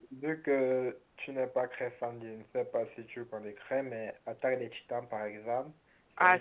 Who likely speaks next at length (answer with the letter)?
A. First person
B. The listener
B